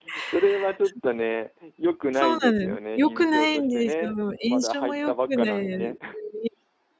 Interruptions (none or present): present